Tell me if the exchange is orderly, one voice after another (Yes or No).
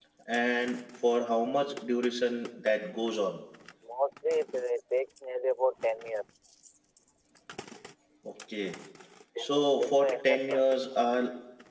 No